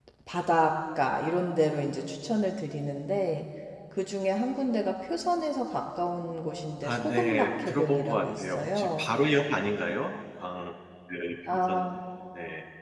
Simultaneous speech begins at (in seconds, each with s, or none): 6.8 s